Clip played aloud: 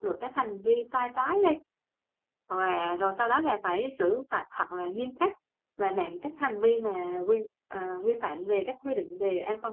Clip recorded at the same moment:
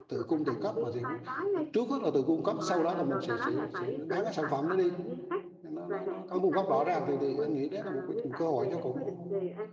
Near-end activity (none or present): present